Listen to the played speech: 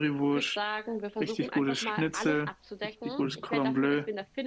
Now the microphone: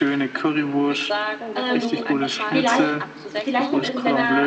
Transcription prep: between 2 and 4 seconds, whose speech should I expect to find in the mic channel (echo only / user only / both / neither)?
both